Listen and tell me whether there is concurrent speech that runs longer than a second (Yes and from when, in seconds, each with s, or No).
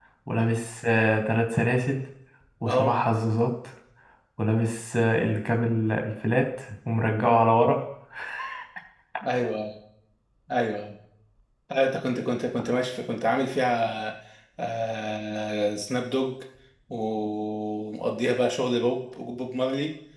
No